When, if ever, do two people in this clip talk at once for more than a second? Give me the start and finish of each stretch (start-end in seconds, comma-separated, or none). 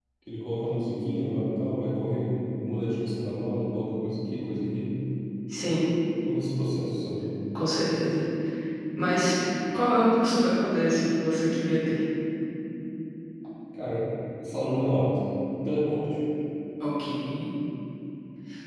none